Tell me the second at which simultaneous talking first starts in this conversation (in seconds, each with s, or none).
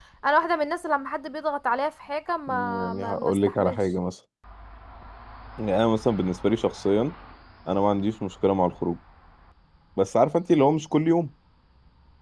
2.5 s